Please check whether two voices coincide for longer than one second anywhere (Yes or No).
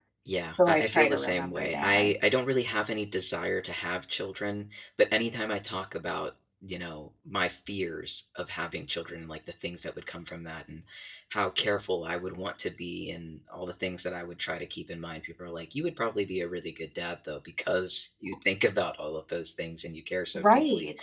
Yes